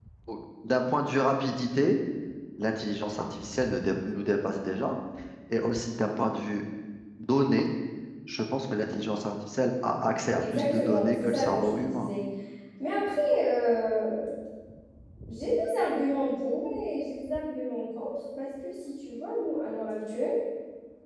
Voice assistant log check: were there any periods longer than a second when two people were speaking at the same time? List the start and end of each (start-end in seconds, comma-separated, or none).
10.4-12.1